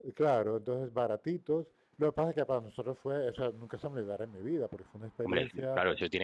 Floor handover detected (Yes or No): Yes